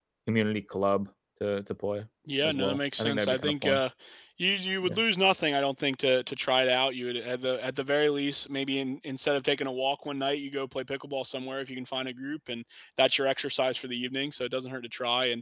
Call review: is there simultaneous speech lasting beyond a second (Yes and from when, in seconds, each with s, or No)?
Yes, from 2.5 s